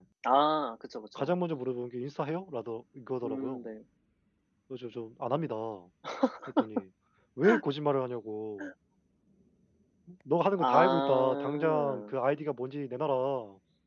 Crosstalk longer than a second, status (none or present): present